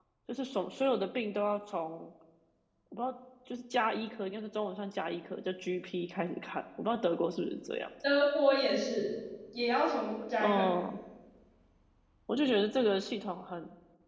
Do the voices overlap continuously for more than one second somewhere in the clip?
No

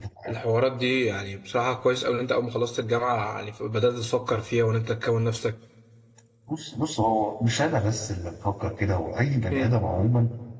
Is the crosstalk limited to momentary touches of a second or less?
Yes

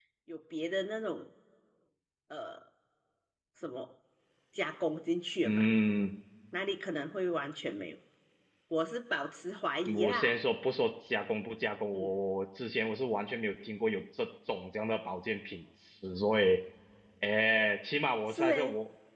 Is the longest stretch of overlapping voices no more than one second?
Yes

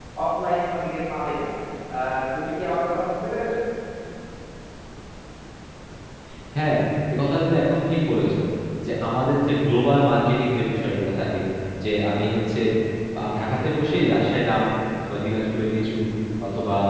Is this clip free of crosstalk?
Yes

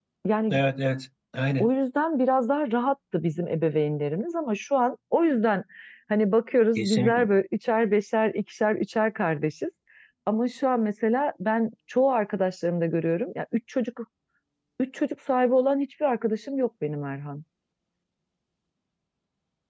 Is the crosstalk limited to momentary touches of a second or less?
Yes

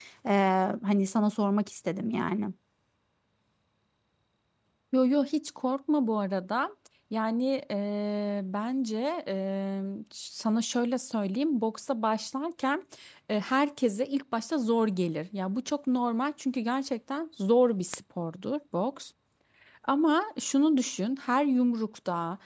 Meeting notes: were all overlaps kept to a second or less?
Yes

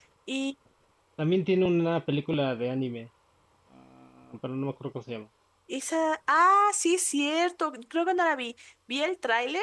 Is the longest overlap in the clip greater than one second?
No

